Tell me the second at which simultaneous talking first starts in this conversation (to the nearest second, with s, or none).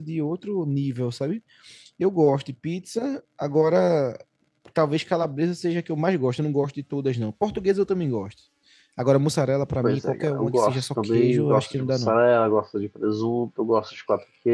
10 s